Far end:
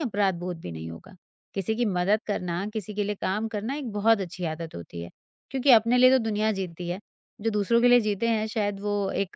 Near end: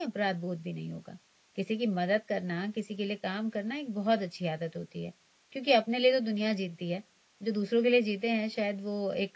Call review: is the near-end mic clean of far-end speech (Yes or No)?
No